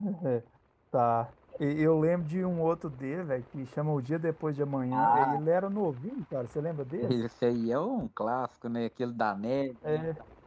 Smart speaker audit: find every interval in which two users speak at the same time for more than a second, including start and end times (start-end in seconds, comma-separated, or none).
none